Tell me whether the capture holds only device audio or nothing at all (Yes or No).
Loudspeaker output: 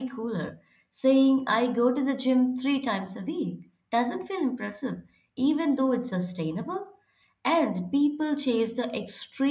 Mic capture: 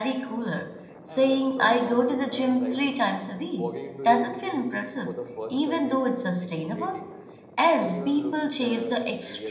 No